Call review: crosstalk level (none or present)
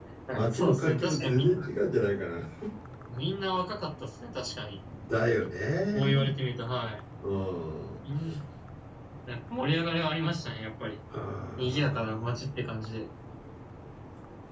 present